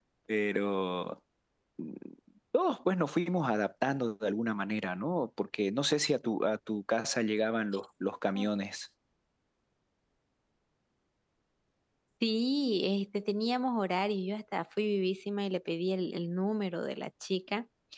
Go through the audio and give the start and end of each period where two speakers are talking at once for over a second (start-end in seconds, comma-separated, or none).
none